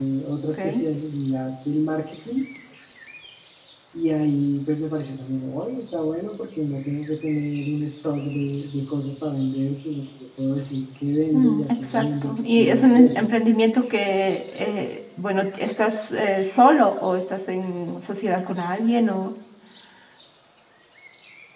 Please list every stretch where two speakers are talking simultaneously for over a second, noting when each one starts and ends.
11.3-13.2

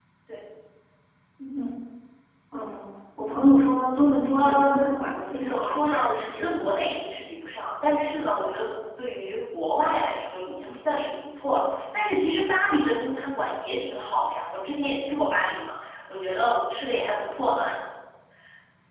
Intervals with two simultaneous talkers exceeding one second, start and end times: 5.3-6.8

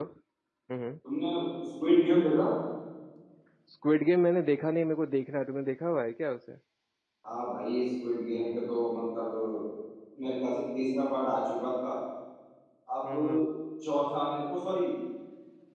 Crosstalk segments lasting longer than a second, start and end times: none

